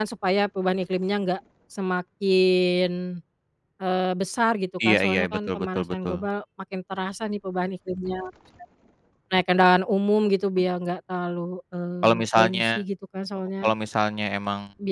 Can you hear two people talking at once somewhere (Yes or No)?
Yes